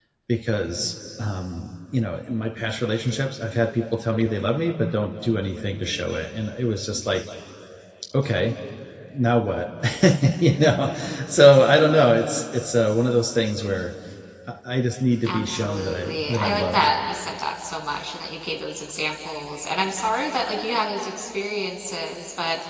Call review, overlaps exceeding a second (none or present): present